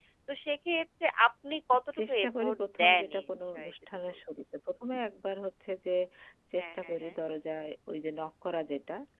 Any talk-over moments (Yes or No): Yes